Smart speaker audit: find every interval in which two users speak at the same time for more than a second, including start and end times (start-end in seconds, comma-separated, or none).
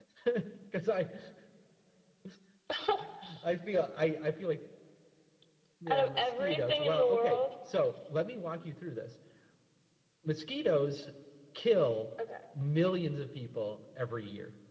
5.9-7.4